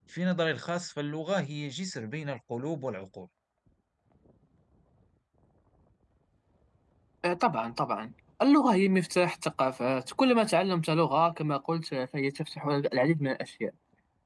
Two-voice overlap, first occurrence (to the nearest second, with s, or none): none